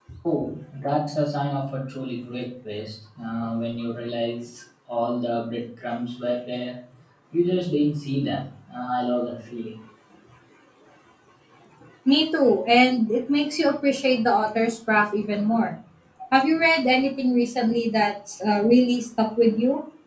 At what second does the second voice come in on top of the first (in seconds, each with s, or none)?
none